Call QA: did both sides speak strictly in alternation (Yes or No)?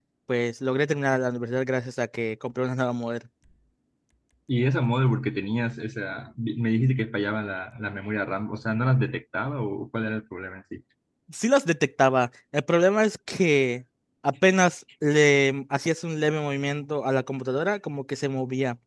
Yes